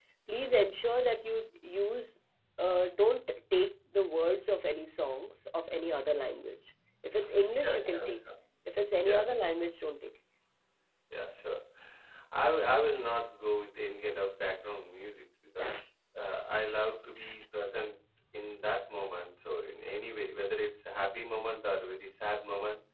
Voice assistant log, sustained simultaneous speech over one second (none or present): none